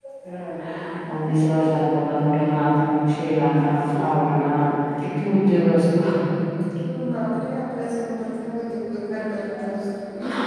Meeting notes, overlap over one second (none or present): none